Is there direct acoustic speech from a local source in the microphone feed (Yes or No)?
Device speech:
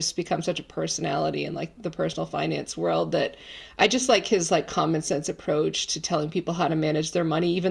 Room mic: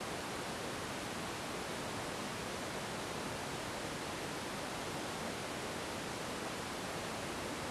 No